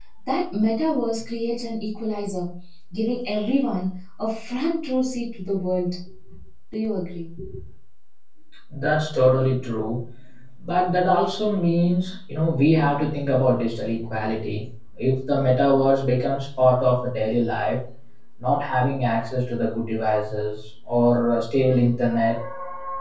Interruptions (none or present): none